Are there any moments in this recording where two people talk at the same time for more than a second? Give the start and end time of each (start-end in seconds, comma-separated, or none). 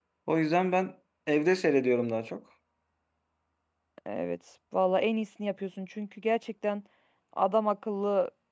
none